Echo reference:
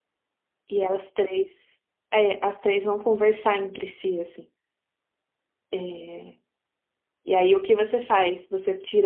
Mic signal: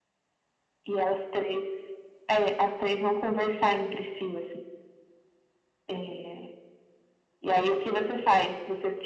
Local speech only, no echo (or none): none